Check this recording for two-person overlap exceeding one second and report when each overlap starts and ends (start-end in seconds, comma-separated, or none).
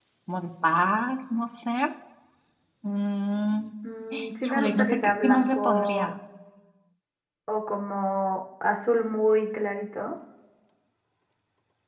4.5-6.1